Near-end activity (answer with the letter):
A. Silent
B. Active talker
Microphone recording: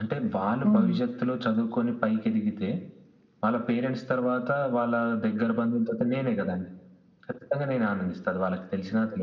B